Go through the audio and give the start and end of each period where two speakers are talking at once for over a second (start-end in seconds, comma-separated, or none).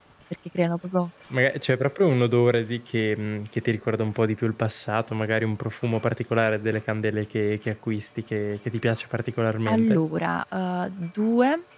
none